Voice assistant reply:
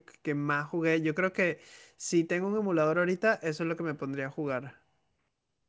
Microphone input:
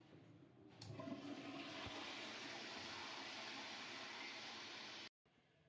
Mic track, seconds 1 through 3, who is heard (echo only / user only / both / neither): neither